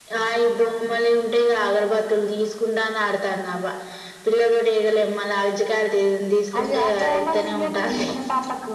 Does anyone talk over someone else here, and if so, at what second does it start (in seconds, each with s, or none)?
6.5 s